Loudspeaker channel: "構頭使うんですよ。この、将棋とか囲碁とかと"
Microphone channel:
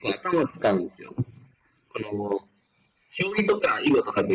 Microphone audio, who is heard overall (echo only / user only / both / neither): echo only